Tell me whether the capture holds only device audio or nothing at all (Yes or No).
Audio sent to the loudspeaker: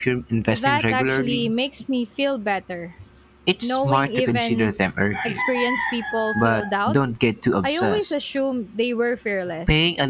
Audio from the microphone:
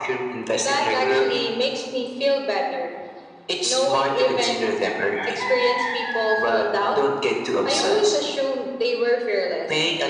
Yes